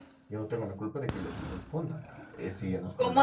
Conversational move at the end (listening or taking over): taking over